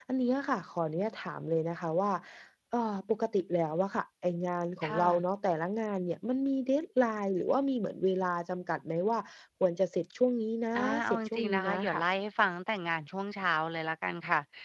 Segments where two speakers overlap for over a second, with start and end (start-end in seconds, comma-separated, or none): 10.8-12.0